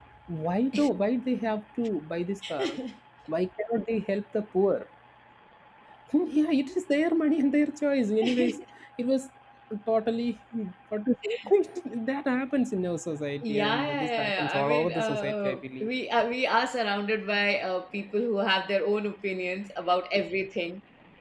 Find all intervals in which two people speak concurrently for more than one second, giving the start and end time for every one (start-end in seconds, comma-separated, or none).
13.4-15.9